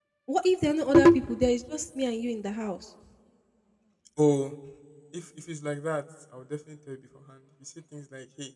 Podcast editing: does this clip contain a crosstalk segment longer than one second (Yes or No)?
No